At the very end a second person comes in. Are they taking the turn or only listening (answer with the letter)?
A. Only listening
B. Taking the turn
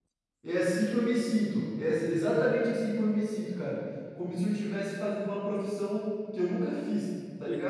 B